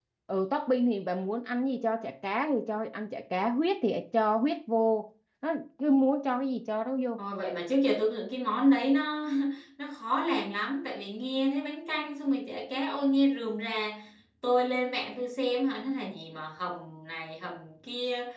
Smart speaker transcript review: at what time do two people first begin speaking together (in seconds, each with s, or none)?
none